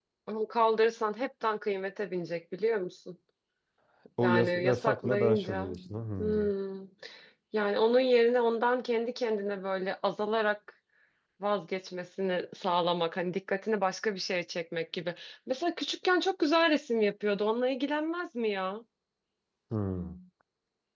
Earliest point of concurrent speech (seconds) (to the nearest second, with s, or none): 4 s